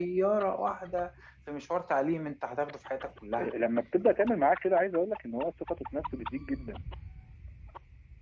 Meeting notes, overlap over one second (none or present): none